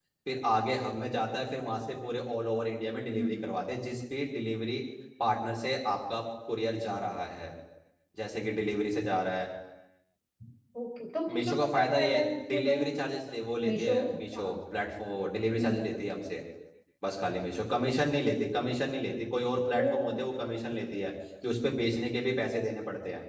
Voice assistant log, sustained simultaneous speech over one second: present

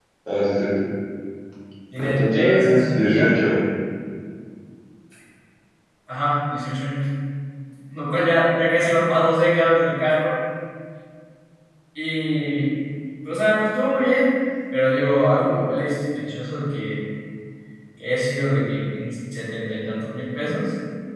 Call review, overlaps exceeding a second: present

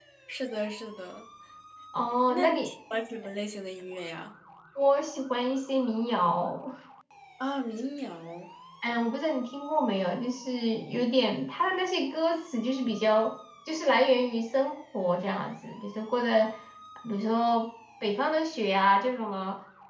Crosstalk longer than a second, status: none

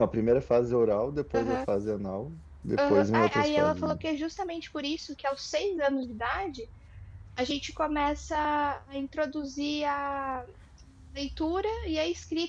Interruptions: present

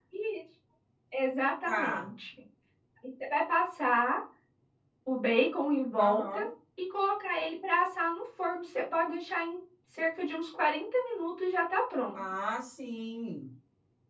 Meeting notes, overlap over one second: none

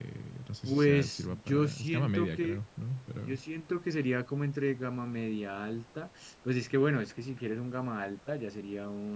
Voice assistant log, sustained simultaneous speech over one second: present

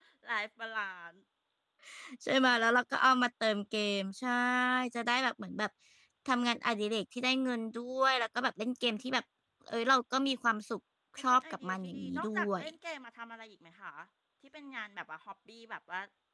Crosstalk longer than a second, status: present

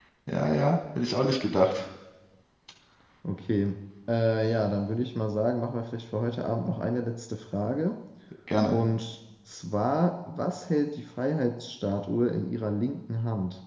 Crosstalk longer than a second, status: none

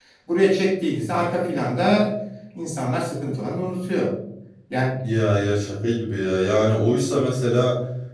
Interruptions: none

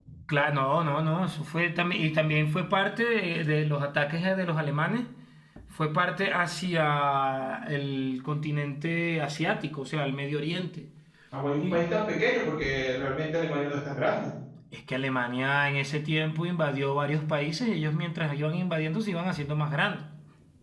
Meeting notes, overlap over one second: none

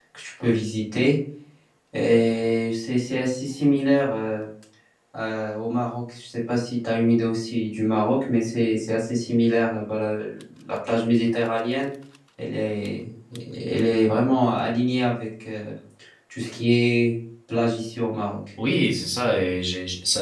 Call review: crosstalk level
none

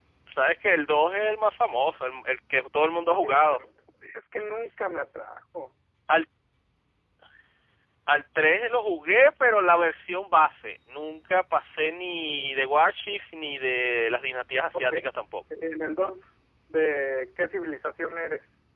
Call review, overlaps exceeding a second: none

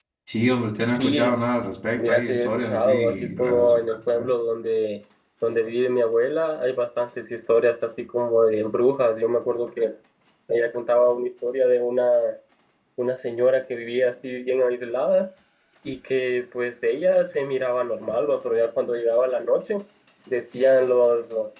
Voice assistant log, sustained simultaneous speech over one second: present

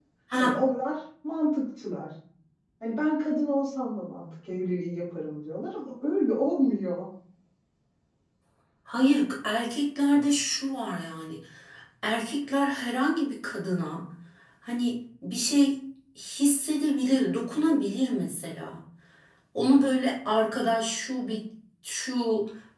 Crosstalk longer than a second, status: none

